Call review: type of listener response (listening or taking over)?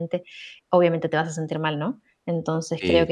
listening